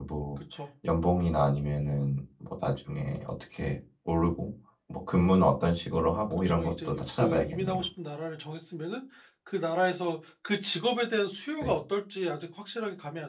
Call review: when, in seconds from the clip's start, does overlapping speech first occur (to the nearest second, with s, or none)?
6 s